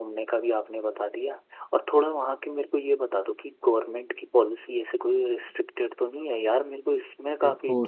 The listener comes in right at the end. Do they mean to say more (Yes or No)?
Yes